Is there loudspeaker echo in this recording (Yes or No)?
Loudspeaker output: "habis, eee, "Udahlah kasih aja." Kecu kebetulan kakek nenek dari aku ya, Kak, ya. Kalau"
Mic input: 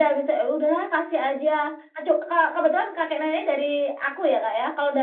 Yes